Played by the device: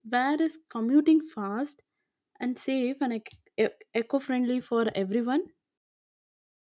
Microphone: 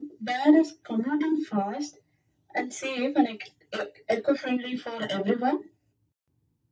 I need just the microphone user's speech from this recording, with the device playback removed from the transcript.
none

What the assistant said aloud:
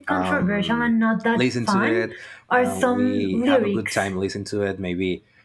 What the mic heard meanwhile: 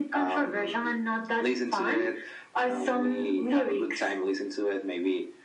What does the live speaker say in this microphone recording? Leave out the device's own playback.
none

